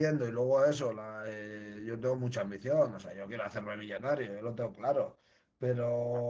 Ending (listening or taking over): listening